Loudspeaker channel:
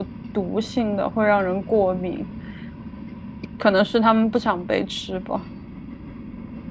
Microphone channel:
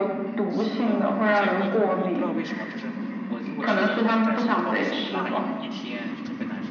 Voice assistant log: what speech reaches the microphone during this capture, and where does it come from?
both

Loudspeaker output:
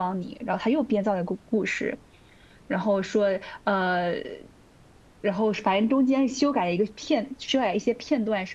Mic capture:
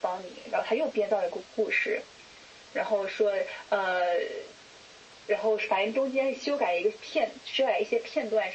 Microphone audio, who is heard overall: echo only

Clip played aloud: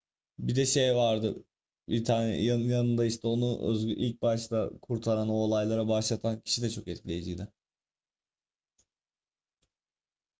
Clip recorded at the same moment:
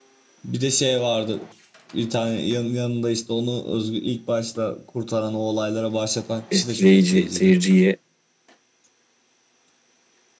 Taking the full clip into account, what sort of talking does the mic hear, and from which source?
both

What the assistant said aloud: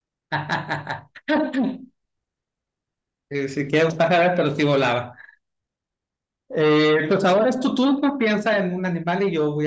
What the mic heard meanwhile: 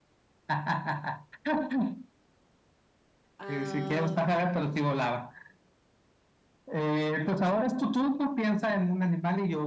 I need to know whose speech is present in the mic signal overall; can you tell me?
both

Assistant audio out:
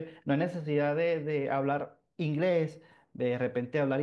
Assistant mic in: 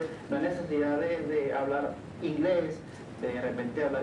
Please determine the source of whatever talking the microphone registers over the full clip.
echo only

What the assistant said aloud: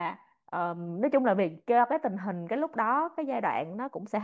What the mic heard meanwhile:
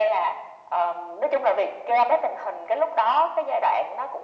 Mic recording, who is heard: echo only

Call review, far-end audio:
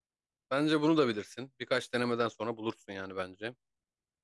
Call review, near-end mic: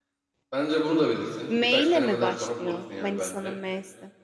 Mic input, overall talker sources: both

